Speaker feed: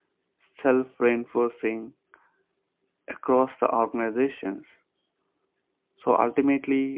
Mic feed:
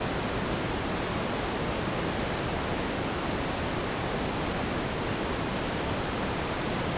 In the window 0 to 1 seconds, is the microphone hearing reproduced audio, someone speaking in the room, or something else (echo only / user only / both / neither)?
neither